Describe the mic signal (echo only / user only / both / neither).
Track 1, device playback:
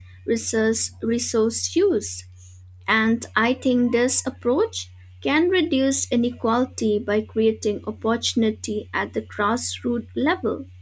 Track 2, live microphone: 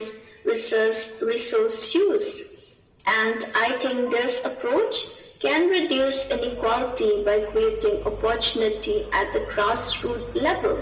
echo only